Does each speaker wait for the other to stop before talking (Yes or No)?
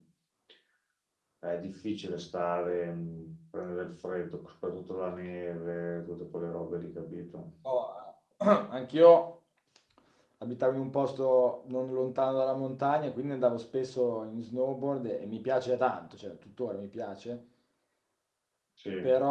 Yes